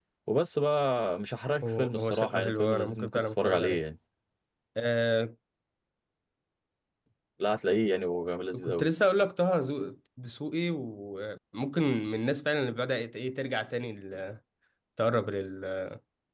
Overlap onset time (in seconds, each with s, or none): 1.6 s